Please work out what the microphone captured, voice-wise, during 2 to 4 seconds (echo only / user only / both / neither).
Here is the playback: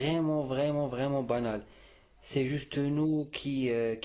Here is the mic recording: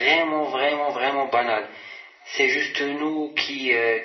echo only